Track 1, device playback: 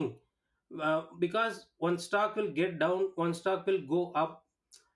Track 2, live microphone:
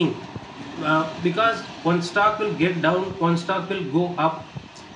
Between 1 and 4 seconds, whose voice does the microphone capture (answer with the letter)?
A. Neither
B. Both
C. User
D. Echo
D